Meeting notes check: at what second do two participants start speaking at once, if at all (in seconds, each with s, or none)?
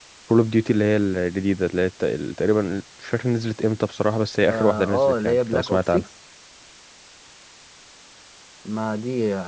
4.5 s